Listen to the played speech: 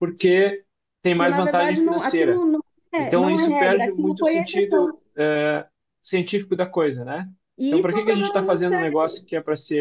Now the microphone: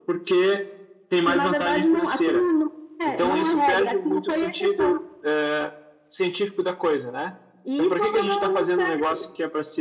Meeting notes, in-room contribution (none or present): none